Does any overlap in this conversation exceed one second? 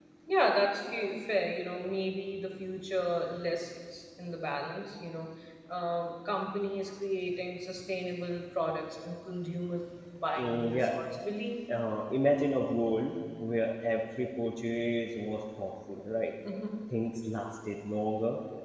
No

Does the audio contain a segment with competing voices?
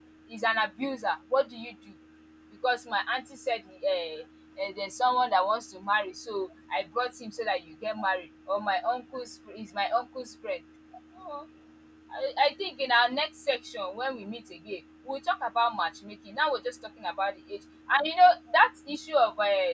No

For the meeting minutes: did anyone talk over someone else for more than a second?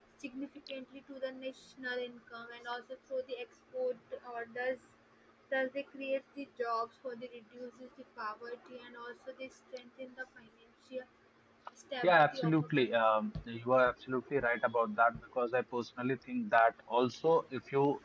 Yes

